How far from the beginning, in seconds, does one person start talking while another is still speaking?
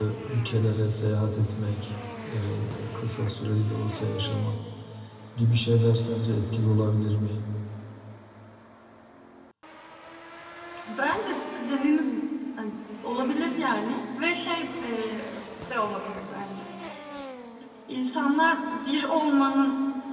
none

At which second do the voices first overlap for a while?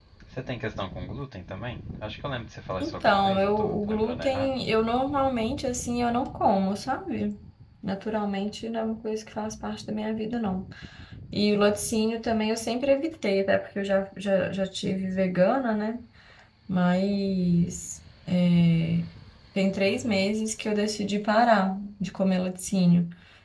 2.8 s

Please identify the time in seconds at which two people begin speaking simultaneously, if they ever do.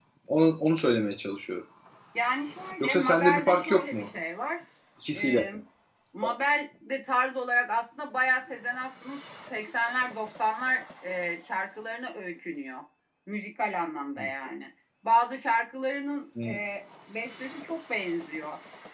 2.8 s

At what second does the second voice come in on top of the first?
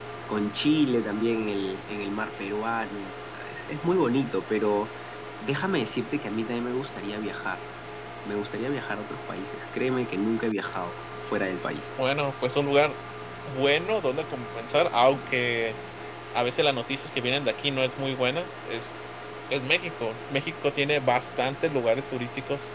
none

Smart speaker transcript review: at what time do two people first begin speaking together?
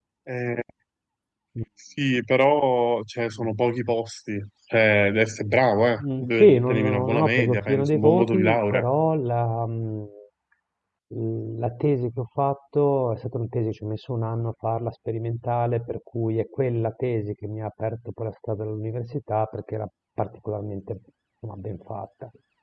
6.0 s

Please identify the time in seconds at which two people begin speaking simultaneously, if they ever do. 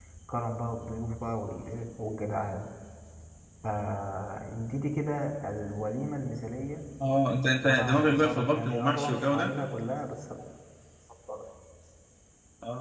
7.6 s

